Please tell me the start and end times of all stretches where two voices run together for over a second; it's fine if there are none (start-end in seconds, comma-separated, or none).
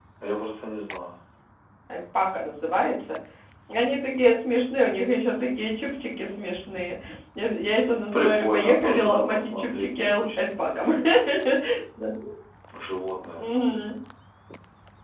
8.1-10.9